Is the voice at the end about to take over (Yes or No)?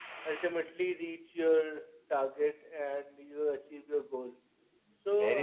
Yes